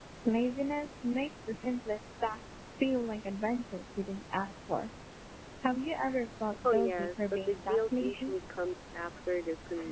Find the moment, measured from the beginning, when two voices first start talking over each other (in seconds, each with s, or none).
6.6 s